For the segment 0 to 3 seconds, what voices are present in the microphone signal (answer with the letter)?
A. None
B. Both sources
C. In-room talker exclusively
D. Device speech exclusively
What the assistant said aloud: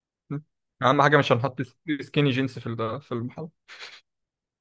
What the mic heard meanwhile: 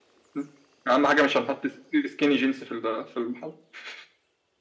D